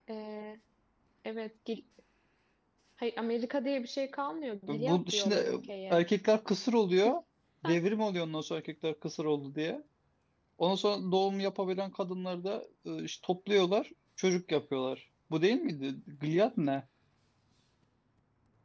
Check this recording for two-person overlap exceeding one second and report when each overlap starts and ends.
4.7-6.0

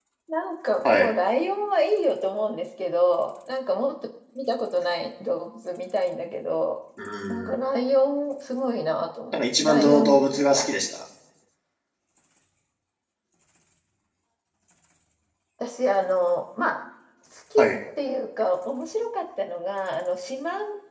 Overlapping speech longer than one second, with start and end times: 9.3-10.7

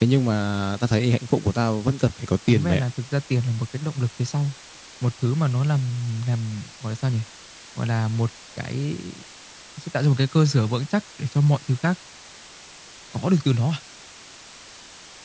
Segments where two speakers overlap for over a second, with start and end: none

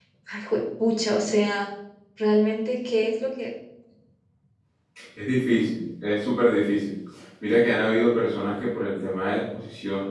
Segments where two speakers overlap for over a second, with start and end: none

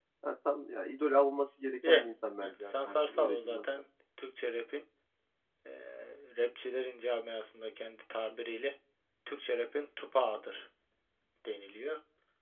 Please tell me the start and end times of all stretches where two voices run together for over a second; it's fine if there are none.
2.4-3.8

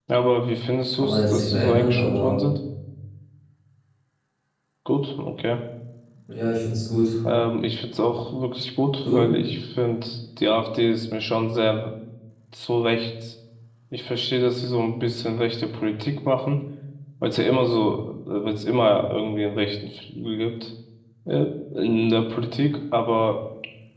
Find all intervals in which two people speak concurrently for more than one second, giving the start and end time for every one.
0.9-2.4

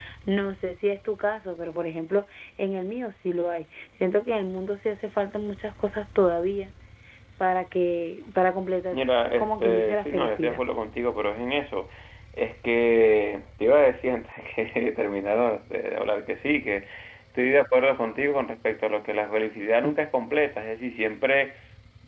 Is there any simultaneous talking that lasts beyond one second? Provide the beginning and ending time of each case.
9.4-10.6

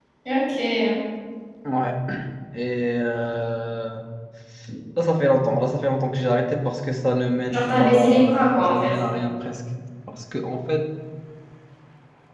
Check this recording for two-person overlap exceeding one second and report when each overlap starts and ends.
7.5-8.9

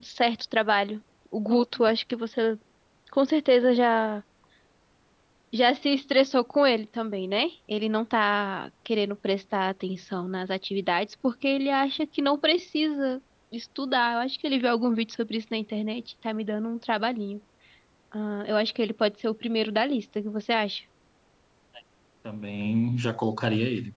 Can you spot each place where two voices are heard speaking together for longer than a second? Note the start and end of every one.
none

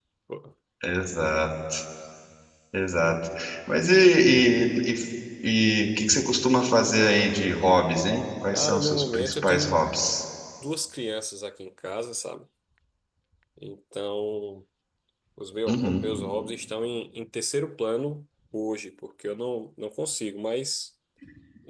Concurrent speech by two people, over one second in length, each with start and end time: 8.5-9.8

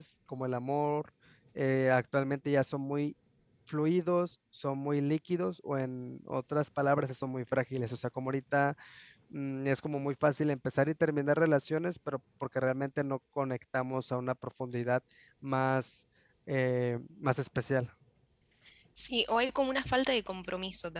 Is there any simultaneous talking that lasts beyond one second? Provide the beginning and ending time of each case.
none

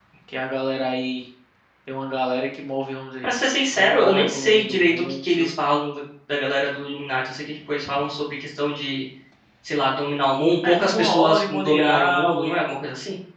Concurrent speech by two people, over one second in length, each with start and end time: 3.7-5.2, 10.7-12.4

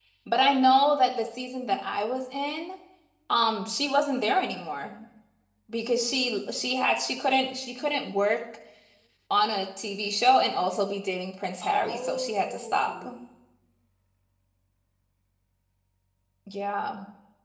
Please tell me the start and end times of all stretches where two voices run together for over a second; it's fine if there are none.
11.6-13.0

